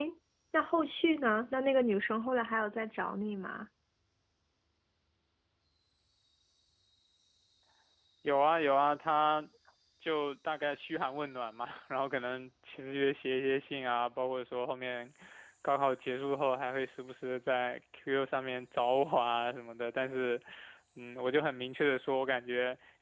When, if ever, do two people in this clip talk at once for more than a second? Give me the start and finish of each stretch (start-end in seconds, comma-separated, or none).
none